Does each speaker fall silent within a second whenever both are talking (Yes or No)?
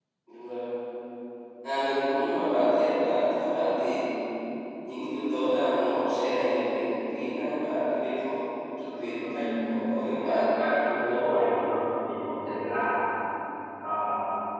No